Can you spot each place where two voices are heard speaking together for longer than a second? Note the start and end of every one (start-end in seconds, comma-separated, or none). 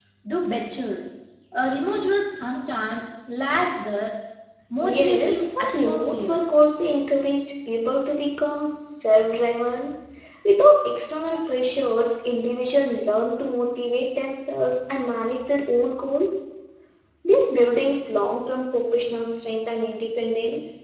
4.9-6.4